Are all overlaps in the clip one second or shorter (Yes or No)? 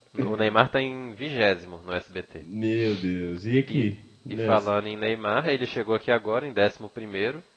Yes